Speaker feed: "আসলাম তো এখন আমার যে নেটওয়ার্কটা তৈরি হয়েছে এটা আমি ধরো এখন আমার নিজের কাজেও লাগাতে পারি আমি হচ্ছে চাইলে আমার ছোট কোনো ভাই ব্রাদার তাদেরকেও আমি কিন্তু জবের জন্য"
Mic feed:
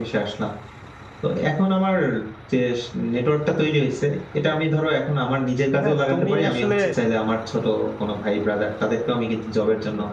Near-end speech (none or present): present